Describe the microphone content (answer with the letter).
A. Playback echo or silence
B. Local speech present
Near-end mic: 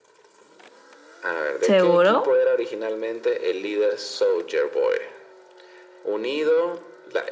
B